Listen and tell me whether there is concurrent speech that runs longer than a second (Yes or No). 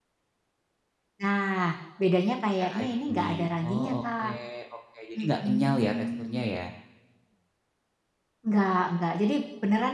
Yes